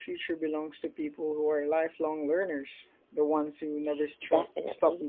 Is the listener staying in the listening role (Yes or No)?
No